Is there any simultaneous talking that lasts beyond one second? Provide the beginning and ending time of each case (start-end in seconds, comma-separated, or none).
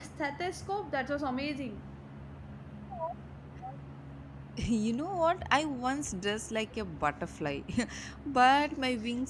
none